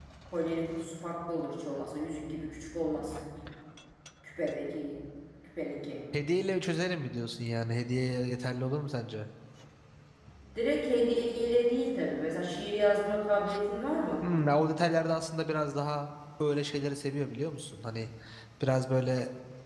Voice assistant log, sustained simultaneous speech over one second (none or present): none